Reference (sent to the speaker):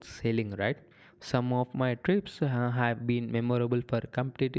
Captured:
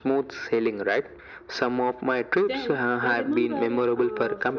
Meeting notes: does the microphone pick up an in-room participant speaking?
Yes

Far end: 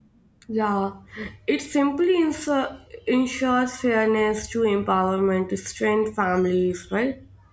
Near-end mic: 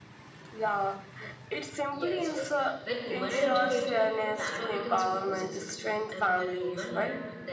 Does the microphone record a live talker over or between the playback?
Yes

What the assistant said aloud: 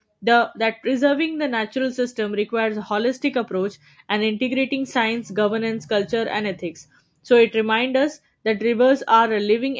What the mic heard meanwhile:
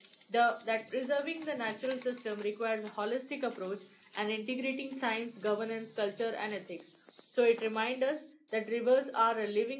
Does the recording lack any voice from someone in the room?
Yes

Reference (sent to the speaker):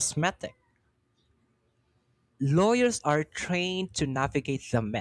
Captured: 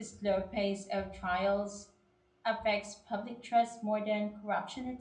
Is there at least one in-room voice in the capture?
Yes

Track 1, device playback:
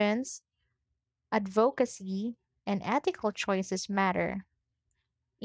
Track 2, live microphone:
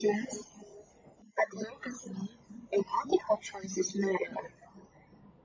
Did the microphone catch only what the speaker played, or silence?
Yes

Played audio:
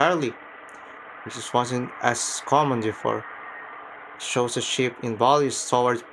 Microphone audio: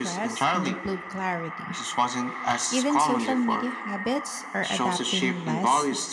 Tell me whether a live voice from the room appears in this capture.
Yes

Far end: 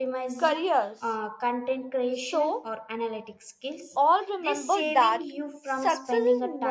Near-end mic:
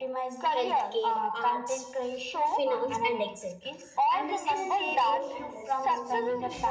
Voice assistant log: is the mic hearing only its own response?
No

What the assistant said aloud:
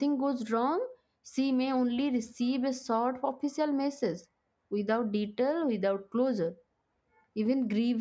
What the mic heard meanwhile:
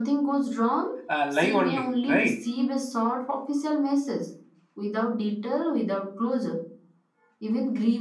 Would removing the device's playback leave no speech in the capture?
No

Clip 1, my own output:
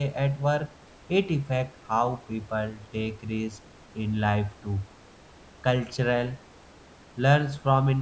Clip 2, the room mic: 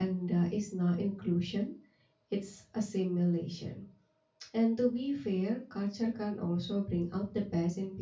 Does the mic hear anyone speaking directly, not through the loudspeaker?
Yes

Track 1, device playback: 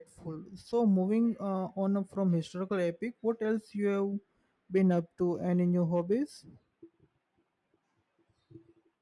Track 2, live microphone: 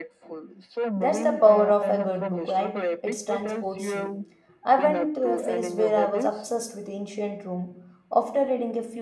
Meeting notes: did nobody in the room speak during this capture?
No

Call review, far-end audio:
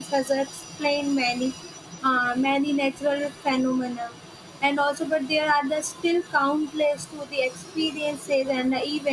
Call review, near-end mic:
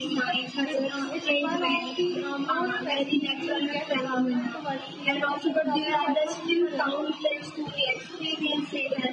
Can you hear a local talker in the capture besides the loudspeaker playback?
Yes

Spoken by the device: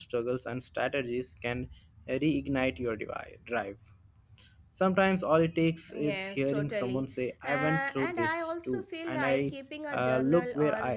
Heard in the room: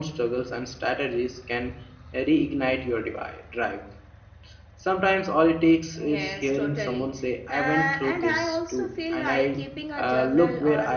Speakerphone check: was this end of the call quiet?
Yes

